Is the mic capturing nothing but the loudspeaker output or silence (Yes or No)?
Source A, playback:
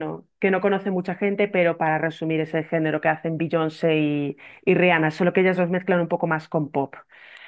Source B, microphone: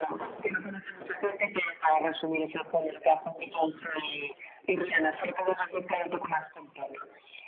Yes